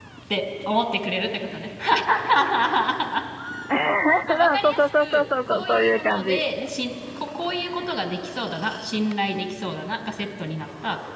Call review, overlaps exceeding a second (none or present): present